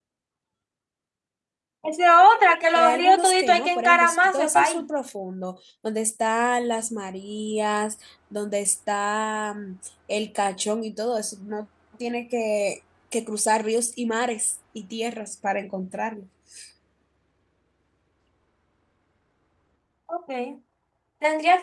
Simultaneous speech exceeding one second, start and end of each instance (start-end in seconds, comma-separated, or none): 2.8-4.8